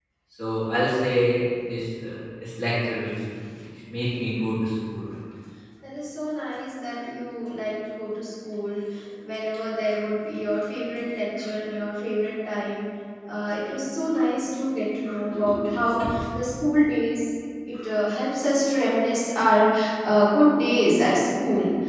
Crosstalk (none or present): none